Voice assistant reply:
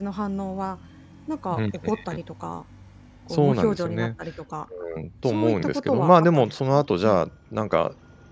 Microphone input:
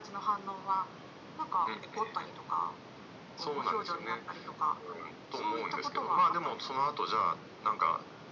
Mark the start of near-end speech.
none

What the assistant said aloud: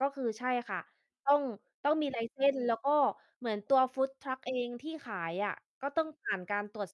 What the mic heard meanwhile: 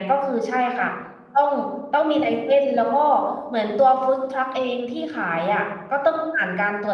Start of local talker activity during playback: none

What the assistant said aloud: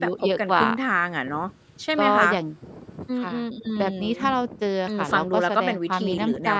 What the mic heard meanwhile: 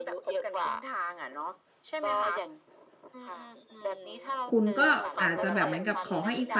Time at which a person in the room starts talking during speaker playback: 4.5 s

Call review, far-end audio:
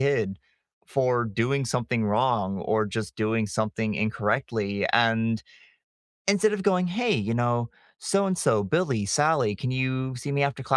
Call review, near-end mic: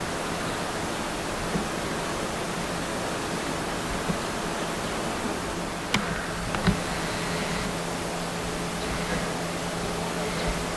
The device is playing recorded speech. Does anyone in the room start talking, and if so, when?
none

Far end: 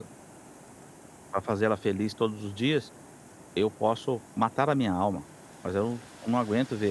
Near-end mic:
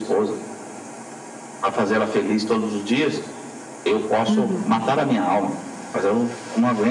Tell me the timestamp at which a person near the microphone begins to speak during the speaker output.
4.2 s

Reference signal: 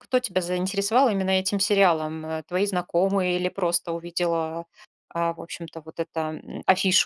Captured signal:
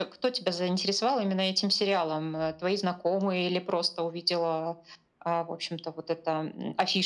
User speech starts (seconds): none

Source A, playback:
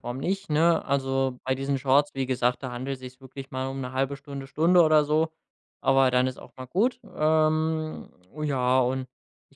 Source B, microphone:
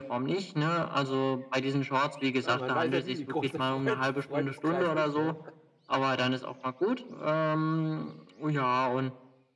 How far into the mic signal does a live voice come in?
2.4 s

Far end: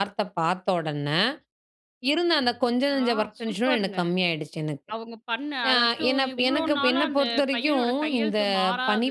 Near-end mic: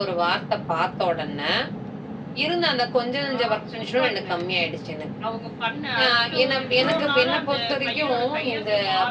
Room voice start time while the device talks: none

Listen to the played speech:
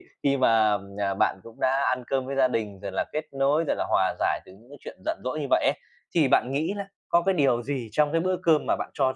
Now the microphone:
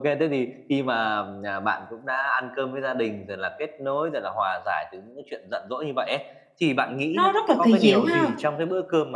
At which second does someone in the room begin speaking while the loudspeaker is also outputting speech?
7.1 s

